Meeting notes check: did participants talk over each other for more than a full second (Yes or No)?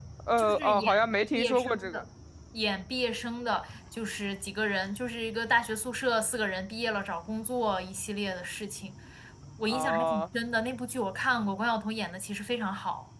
Yes